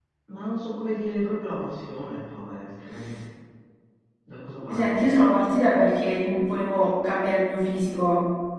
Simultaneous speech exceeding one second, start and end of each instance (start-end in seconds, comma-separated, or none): none